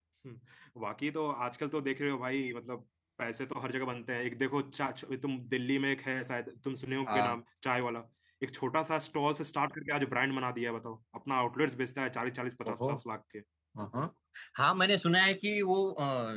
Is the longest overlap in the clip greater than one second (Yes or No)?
No